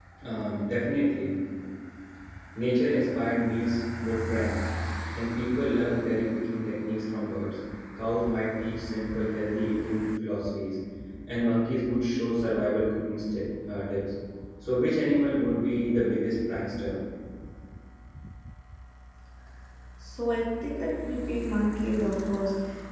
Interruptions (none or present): none